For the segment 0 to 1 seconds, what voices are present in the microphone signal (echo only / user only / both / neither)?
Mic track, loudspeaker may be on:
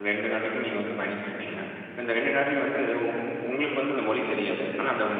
user only